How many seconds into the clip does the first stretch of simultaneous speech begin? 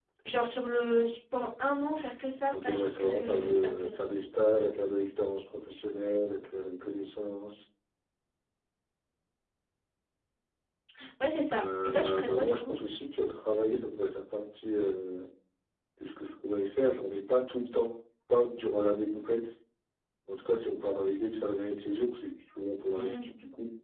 2.5 s

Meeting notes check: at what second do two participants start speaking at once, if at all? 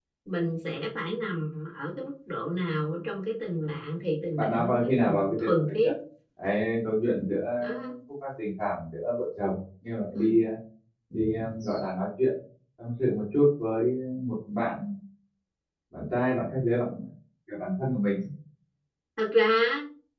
4.4 s

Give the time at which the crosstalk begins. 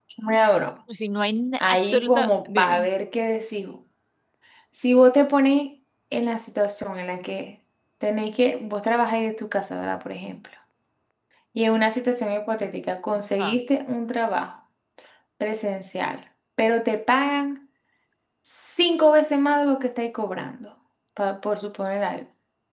1.6 s

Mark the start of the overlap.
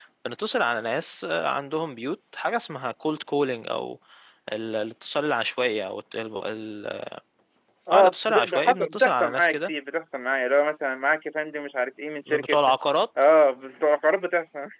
7.9 s

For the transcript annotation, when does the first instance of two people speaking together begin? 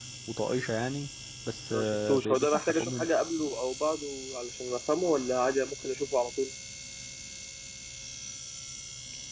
1.7 s

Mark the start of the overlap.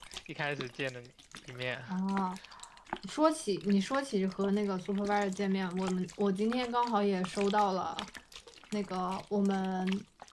none

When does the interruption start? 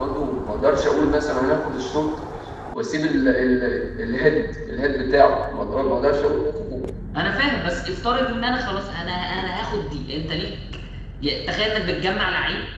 none

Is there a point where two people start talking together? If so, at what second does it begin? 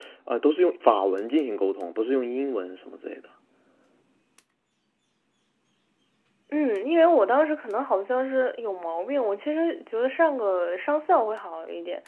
none

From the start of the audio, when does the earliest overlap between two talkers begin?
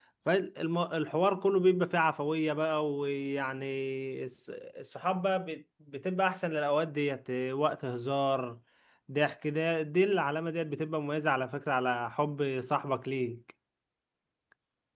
none

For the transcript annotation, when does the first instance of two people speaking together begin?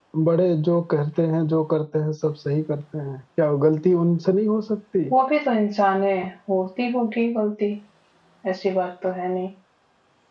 none

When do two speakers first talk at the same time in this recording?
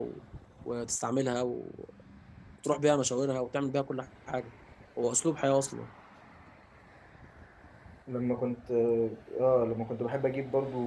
none

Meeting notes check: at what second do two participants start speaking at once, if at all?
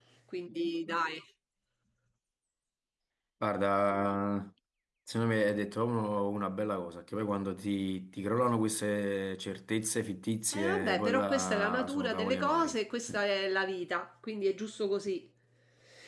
10.5 s

